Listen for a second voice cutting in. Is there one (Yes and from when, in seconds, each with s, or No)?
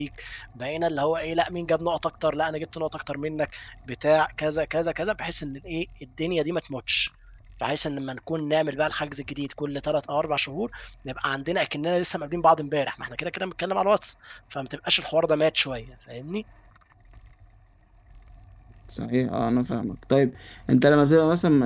No